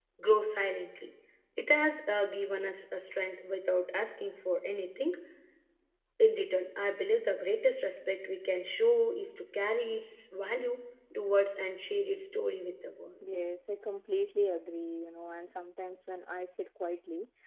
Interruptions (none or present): none